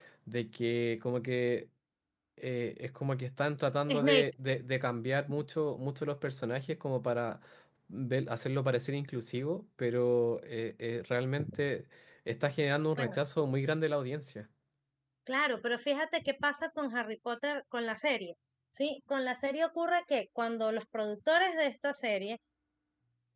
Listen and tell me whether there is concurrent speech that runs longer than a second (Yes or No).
No